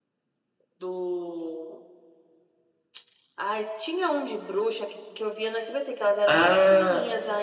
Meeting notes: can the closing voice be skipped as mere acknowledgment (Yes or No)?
Yes